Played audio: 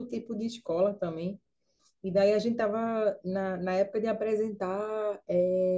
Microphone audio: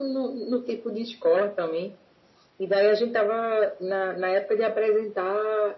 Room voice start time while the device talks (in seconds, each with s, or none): none